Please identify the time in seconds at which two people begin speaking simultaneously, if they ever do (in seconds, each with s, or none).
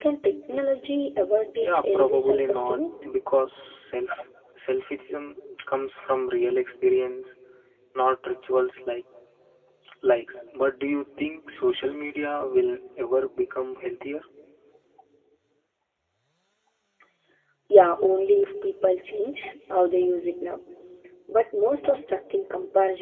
1.6 s